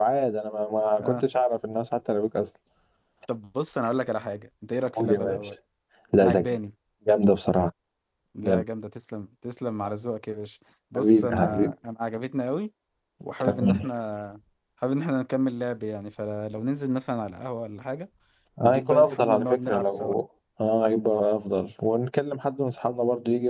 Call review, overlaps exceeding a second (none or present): present